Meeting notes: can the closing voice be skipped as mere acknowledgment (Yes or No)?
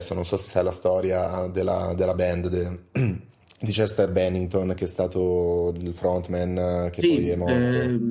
No